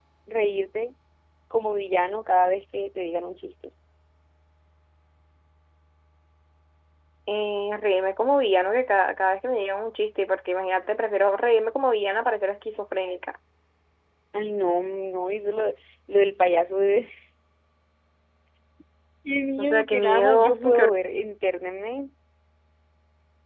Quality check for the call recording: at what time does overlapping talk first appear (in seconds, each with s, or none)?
19.6 s